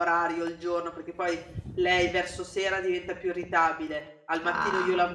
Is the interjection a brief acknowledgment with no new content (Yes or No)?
Yes